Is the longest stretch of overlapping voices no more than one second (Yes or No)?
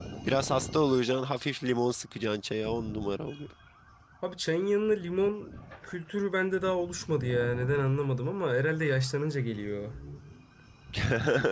Yes